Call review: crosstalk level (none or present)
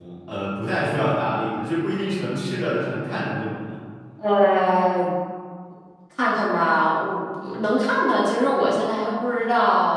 none